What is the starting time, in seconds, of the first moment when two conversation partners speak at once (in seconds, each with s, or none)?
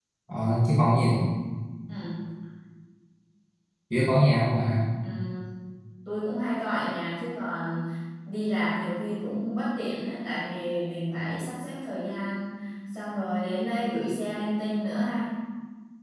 none